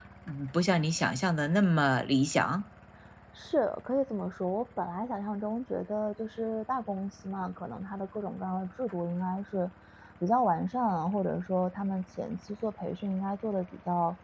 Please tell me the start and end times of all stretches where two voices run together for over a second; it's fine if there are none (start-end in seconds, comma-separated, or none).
none